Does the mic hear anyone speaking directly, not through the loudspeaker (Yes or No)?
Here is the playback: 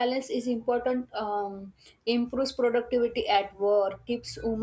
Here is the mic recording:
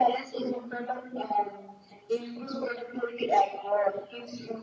No